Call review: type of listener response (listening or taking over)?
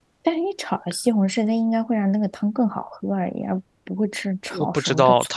taking over